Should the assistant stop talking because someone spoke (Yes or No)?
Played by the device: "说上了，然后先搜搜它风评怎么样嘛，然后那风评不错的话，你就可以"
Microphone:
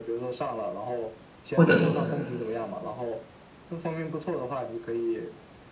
Yes